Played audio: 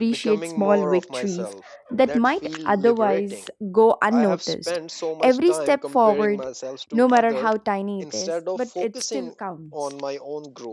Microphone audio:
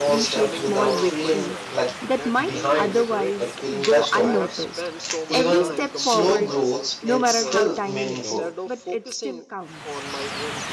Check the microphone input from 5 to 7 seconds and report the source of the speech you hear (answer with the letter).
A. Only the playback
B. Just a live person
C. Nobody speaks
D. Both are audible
D